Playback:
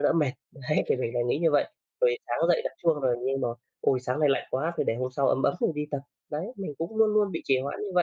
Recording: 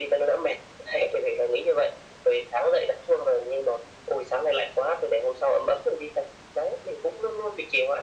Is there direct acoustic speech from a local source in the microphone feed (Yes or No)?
No